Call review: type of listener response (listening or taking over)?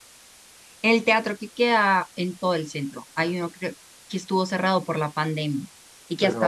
listening